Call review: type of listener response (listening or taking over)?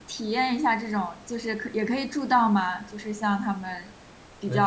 taking over